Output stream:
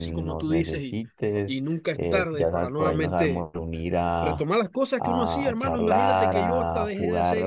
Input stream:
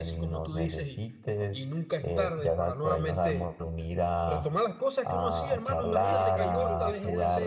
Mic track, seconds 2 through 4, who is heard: echo only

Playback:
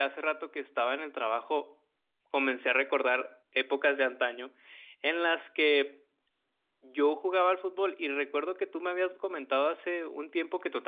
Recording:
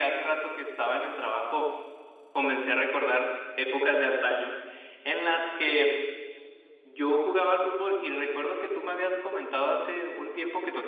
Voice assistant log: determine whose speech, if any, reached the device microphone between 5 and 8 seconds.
echo only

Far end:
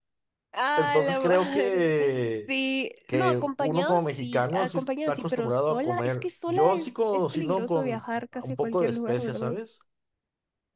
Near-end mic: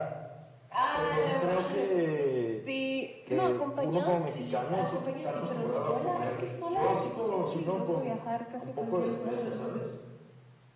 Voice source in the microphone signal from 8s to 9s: echo only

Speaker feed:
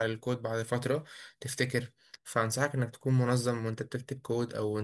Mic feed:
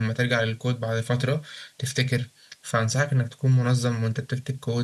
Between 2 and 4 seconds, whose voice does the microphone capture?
echo only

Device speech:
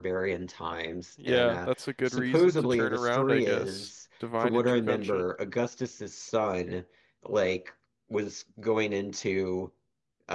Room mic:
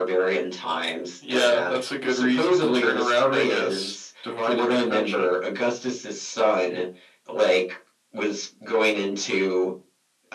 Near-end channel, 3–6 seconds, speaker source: echo only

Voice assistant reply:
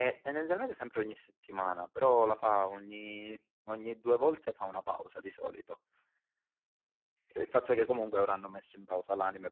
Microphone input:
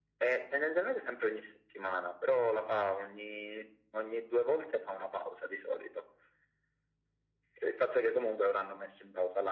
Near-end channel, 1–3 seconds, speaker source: echo only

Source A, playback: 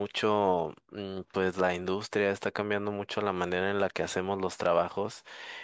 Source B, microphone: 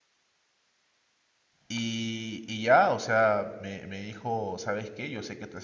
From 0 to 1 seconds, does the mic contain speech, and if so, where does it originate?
neither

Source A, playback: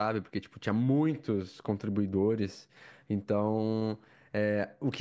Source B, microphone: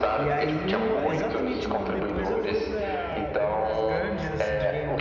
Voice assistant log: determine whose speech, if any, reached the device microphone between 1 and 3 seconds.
both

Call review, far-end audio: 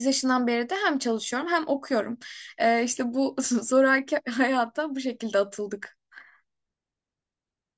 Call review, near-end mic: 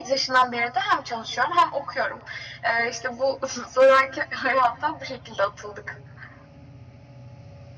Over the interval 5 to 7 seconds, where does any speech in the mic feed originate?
echo only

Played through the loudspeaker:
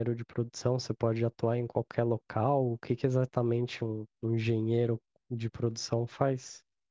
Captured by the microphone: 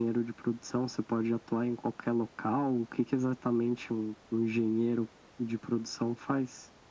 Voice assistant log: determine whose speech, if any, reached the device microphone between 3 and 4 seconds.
echo only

